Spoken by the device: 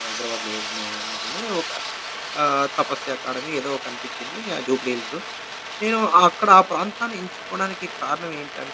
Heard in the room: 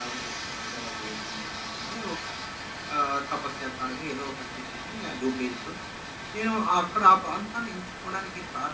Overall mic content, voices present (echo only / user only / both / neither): echo only